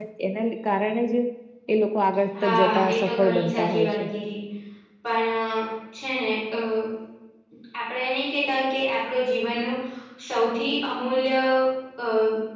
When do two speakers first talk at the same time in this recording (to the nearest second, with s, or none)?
2 s